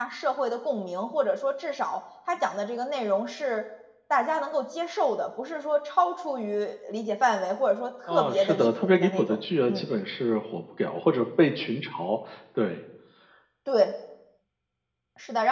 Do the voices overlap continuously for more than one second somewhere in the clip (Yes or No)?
Yes